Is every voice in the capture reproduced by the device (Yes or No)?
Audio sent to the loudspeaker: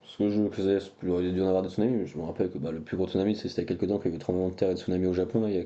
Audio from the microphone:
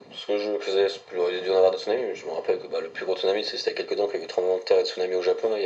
Yes